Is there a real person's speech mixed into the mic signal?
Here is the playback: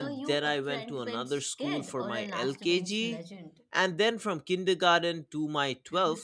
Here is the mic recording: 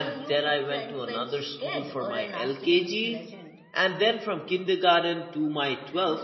No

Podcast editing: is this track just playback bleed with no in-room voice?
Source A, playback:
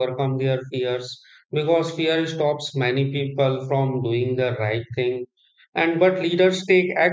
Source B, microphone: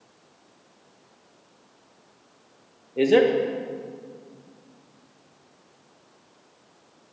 No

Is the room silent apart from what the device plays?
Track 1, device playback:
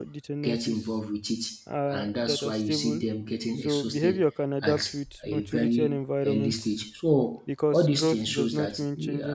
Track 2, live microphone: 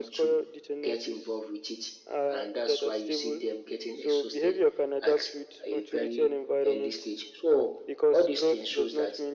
Yes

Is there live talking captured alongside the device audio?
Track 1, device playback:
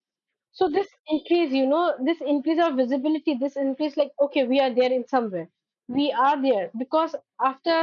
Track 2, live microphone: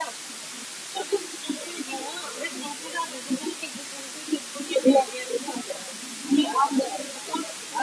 No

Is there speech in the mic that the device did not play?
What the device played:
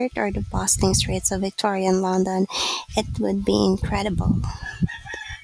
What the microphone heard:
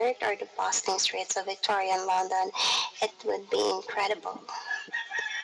No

